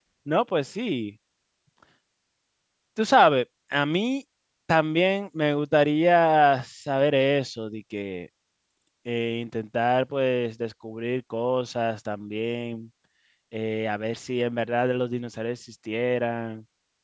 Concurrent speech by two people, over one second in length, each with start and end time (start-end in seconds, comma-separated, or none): none